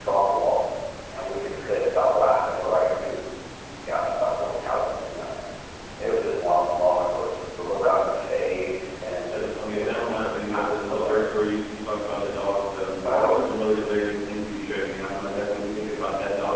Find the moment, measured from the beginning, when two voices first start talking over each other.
9.3 s

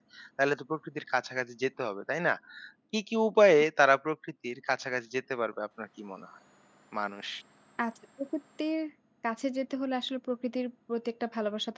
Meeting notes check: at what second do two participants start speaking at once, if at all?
none

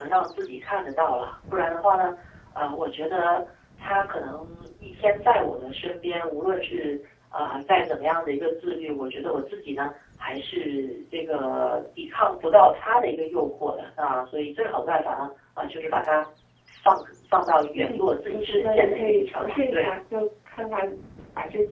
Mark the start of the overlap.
17.7 s

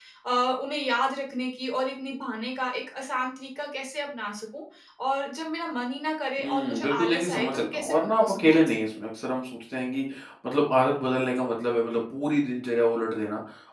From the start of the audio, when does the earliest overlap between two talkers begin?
6.4 s

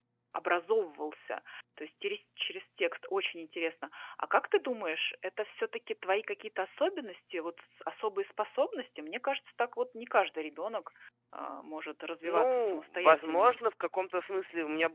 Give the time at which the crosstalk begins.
12.2 s

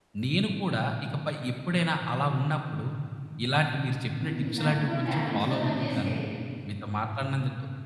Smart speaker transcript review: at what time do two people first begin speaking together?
4.2 s

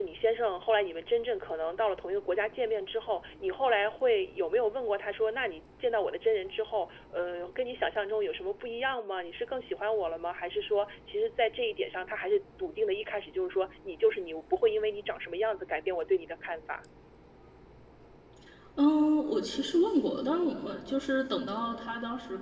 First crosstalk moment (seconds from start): none

